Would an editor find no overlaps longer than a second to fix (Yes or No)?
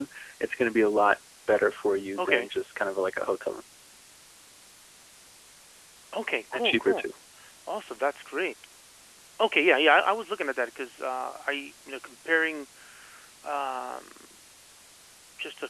Yes